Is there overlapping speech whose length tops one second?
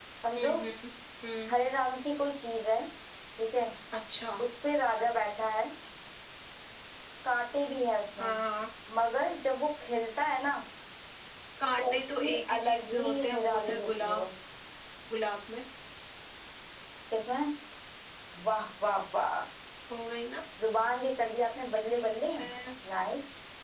Yes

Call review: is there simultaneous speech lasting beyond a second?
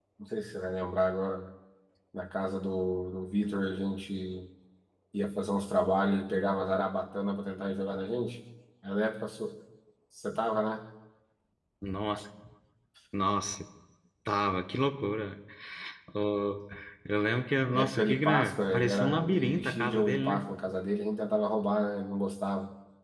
Yes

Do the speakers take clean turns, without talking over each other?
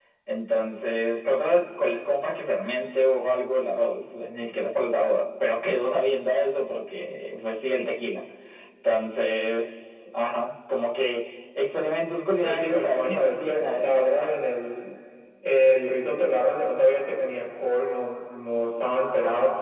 No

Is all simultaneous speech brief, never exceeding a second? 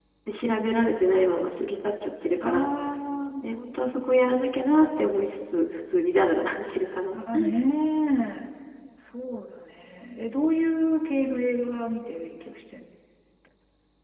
Yes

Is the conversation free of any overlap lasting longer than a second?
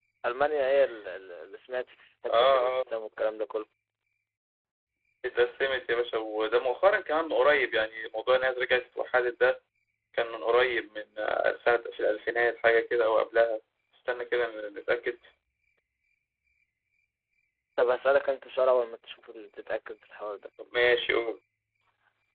Yes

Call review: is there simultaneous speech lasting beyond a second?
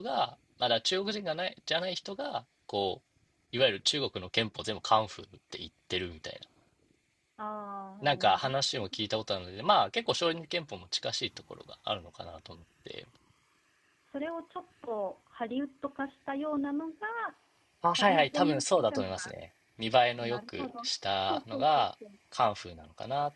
Yes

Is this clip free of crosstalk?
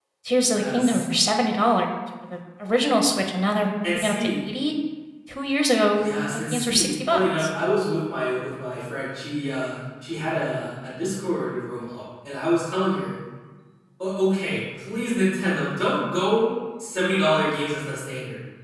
No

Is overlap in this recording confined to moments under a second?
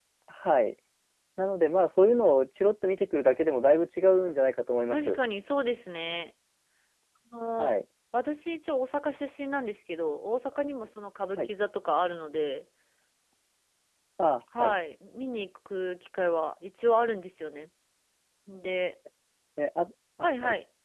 Yes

